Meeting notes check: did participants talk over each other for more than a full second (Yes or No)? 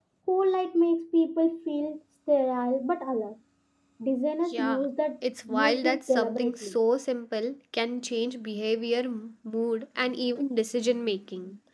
Yes